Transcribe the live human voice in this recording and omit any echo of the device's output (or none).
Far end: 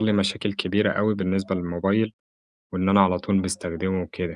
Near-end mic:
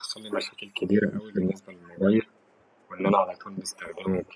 none